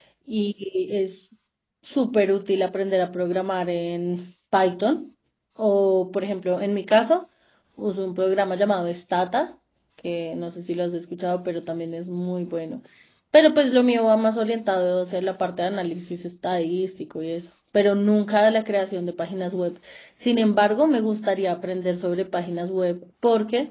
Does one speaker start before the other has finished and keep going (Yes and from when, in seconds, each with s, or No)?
No